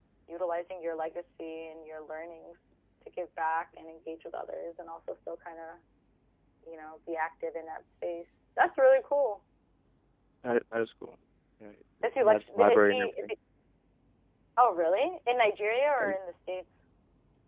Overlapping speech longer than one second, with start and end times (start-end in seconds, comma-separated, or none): 12.0-13.3